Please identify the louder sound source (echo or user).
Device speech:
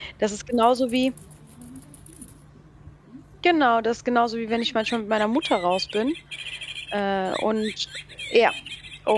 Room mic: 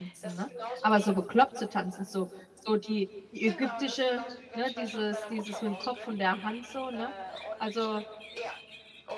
user